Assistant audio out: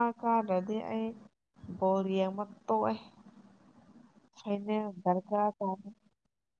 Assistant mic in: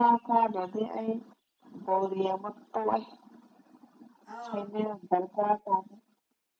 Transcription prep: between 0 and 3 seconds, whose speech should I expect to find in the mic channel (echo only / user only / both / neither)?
echo only